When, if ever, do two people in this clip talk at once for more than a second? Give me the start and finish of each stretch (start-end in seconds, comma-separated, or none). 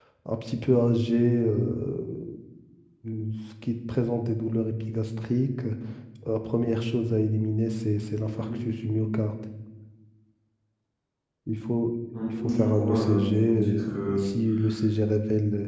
12.4-14.2